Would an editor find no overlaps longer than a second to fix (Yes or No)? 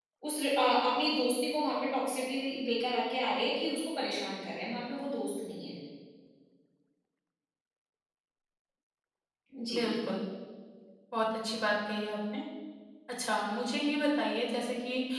Yes